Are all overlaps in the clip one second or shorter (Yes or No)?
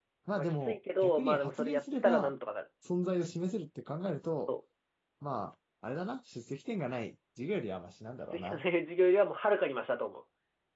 No